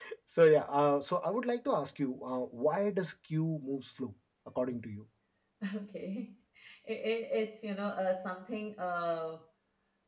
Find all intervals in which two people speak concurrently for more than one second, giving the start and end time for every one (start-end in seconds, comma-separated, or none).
none